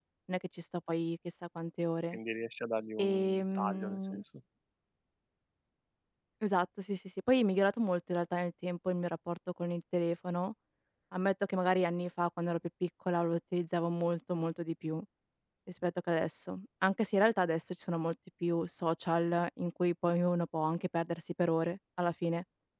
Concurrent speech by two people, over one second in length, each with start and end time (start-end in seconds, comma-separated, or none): 3.0-4.2